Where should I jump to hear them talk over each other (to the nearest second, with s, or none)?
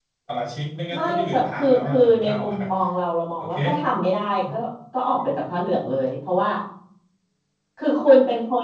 1 s